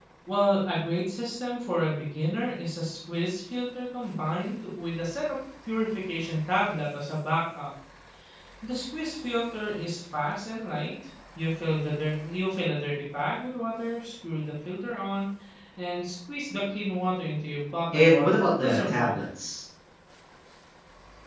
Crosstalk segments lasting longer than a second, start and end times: 17.9-19.1

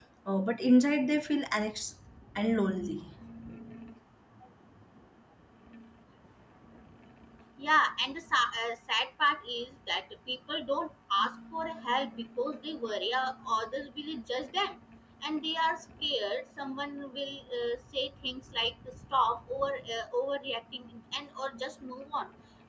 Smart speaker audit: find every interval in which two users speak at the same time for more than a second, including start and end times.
none

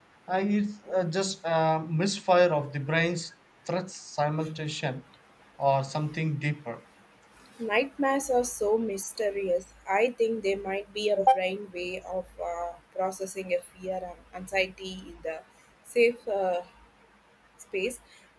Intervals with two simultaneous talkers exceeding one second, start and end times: none

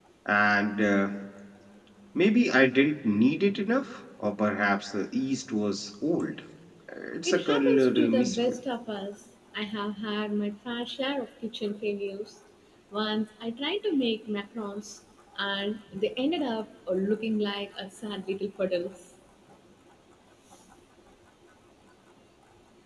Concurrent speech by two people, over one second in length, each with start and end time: 7.2-8.6

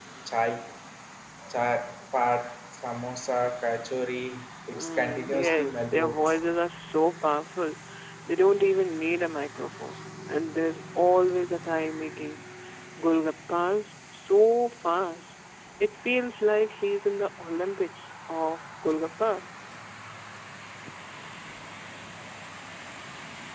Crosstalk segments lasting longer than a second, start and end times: 4.7-6.2

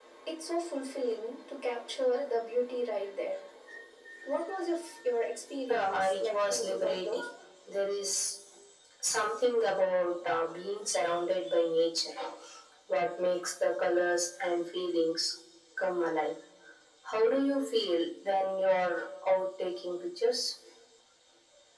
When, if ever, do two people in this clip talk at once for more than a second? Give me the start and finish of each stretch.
5.7-7.2

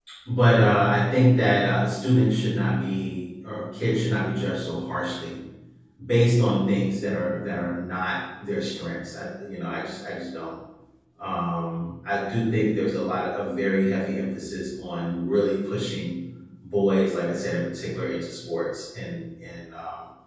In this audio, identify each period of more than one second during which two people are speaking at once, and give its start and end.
none

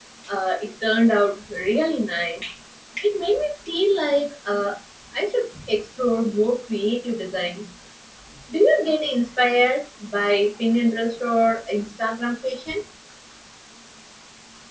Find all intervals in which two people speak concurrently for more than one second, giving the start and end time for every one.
none

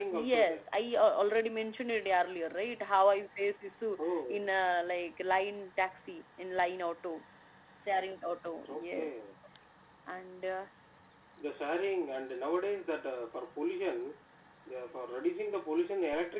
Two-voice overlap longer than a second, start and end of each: none

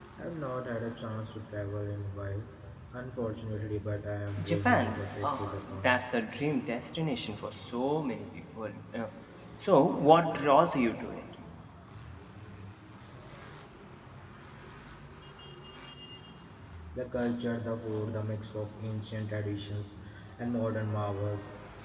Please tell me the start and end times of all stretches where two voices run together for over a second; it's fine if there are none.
4.4-6.0

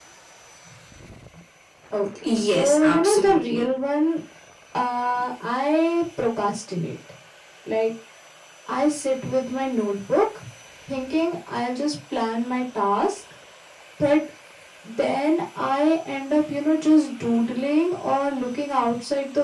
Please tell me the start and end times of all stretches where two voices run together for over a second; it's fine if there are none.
2.2-3.7

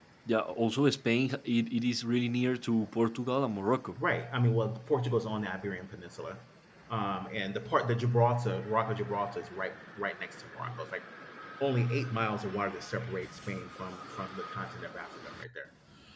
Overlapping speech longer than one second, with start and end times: none

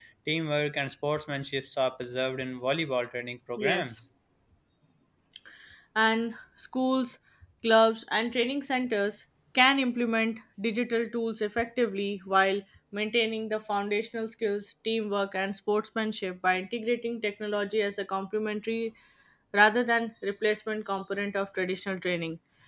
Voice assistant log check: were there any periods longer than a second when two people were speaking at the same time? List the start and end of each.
none

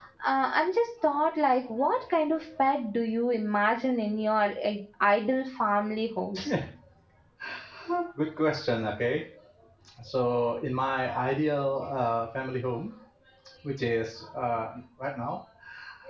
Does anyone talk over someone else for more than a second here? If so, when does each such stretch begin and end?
none

